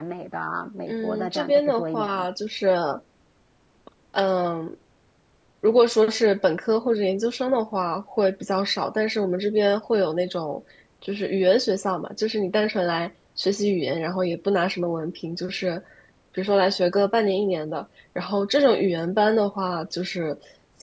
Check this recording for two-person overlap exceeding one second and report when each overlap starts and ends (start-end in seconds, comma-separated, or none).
0.9-2.2